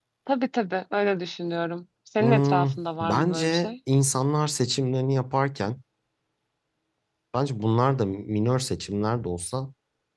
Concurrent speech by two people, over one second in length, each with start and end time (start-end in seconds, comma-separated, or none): 2.2-3.7